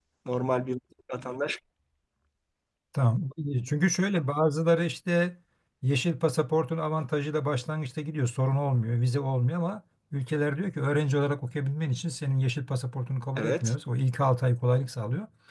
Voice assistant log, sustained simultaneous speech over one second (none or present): none